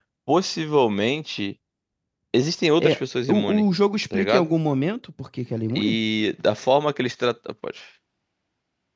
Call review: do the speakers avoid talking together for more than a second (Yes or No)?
Yes